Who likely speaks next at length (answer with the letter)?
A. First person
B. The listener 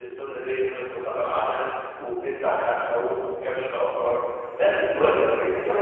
A